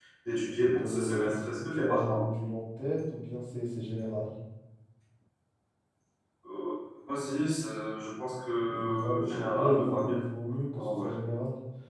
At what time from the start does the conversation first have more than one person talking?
0.6 s

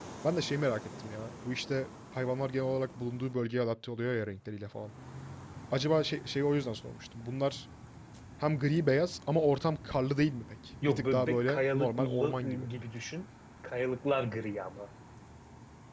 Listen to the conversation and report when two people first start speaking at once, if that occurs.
10.8 s

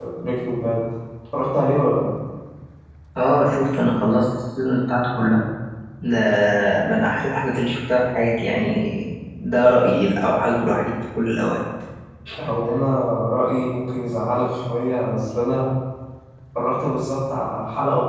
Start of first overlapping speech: none

